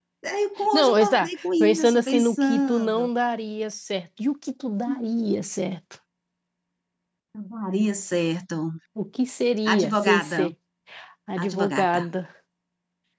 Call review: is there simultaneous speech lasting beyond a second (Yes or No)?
Yes